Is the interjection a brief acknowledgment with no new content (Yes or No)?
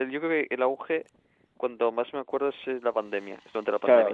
No